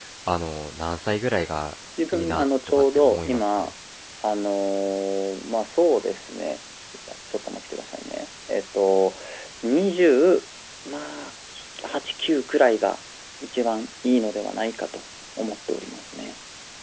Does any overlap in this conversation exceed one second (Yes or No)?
Yes